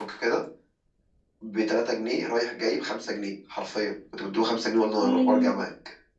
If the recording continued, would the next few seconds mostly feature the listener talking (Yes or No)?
No